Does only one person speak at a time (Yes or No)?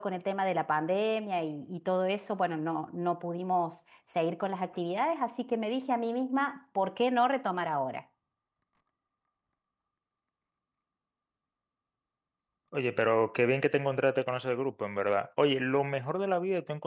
Yes